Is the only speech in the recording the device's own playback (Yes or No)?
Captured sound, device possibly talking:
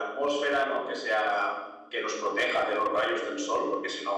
Yes